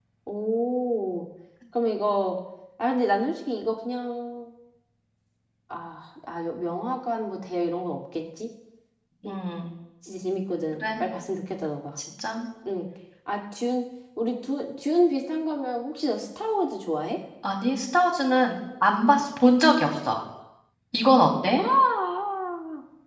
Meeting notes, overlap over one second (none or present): none